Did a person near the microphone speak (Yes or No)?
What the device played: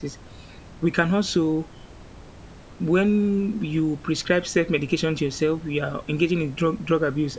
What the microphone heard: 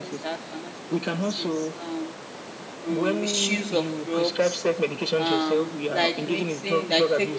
Yes